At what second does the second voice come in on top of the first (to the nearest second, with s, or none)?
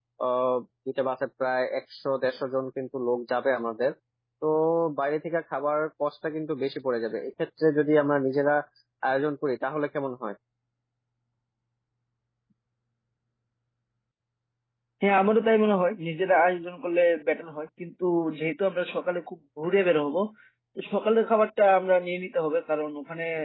none